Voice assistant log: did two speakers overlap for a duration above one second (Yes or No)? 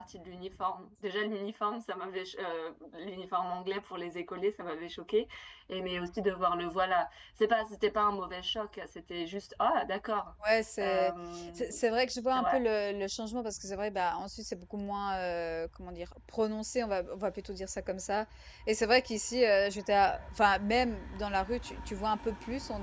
No